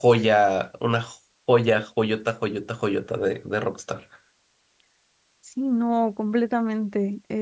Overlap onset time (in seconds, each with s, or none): none